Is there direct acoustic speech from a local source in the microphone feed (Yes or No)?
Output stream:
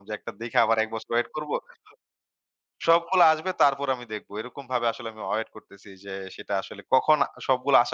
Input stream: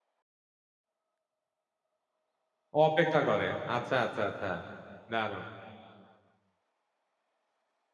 Yes